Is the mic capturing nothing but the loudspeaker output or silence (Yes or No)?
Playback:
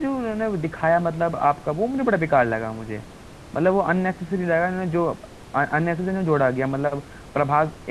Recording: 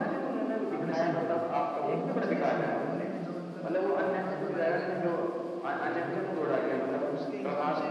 No